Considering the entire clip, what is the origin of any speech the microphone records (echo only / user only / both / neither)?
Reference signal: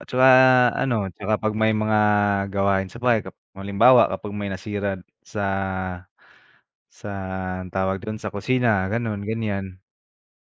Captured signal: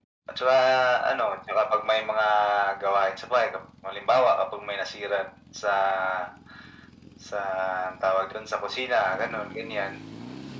echo only